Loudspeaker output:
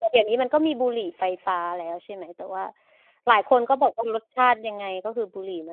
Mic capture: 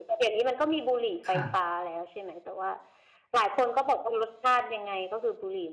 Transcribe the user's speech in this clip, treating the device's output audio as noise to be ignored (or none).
ค่ะ